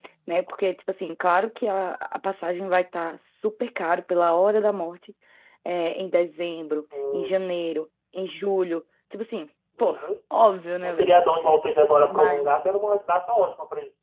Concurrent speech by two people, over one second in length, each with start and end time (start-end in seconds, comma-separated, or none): none